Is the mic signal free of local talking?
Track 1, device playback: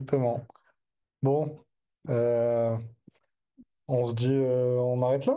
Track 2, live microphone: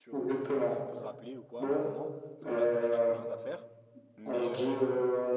No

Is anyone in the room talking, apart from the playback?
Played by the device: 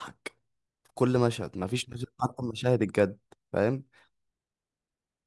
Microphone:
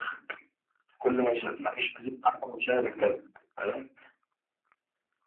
No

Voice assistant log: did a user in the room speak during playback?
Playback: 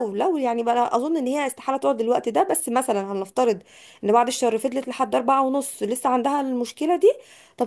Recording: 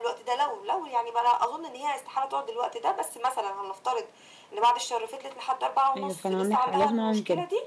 Yes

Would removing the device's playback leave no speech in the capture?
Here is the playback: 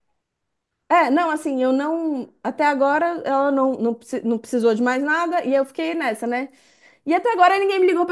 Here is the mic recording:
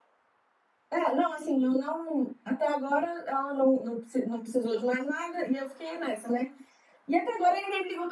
Yes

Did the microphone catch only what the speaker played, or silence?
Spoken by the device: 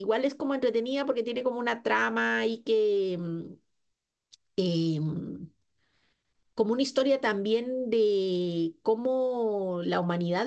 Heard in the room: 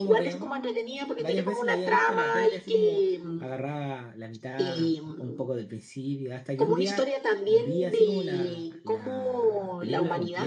No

